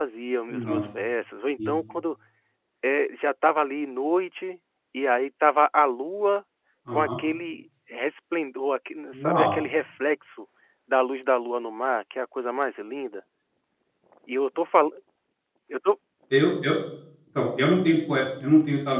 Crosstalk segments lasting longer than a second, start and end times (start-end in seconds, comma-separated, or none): none